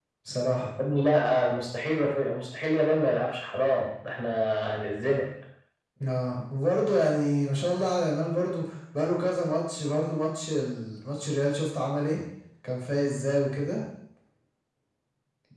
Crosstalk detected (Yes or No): No